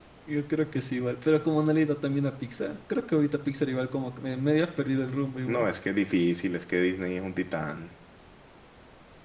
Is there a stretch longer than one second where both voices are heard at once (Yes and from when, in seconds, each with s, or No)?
No